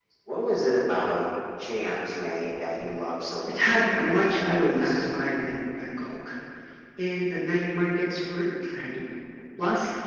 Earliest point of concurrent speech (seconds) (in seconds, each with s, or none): 3.5 s